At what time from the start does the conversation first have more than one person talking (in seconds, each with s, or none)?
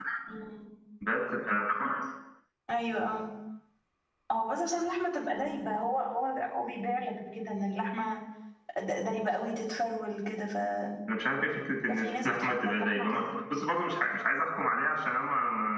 11.9 s